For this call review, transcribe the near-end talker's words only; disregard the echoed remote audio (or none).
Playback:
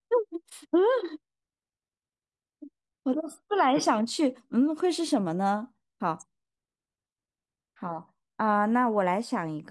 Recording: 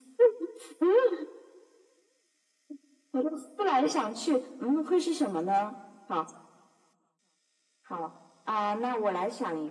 none